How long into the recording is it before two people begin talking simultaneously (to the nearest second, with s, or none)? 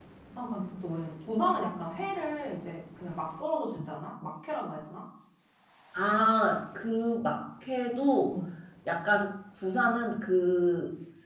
none